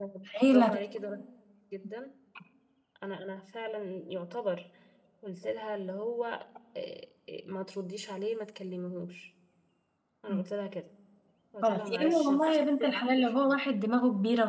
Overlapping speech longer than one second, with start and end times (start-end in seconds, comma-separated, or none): 11.6-13.6